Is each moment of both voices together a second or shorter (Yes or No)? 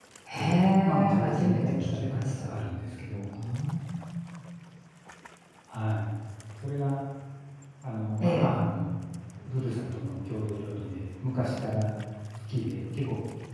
No